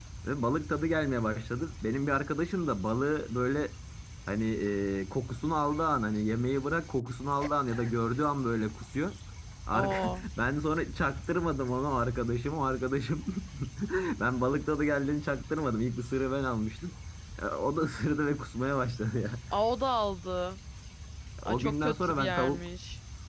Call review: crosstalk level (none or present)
present